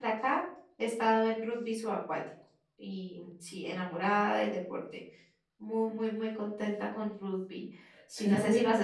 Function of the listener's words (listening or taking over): taking over